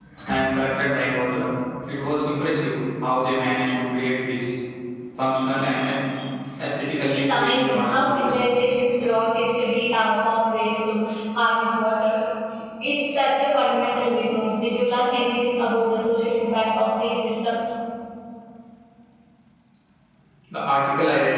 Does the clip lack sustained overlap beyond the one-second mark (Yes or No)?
No